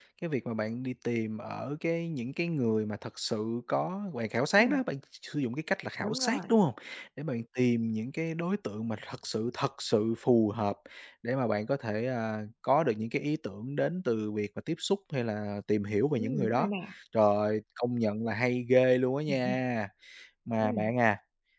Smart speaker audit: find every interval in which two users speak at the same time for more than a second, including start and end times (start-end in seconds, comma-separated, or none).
none